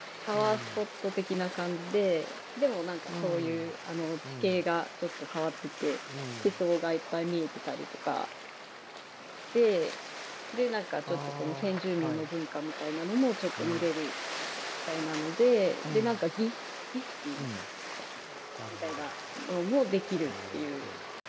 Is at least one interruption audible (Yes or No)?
Yes